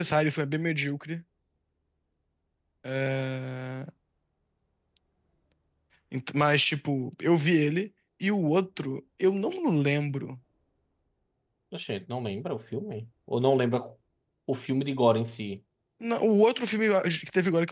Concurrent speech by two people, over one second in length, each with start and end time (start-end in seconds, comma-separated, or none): none